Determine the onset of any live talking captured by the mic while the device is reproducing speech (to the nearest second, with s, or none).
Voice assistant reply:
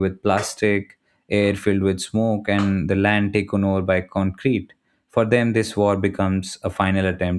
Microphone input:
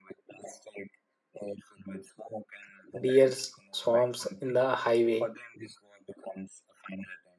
3 s